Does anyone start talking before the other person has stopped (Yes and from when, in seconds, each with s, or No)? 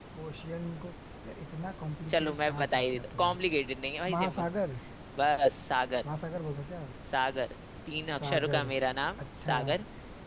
Yes, from 2.1 s